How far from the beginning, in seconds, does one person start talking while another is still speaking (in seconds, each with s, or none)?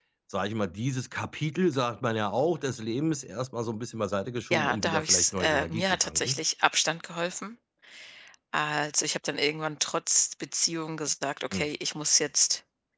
4.5 s